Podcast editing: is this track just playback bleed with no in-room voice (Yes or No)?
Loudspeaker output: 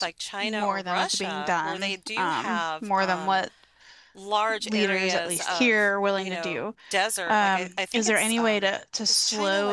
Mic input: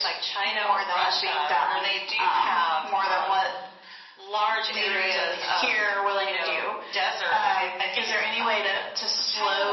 Yes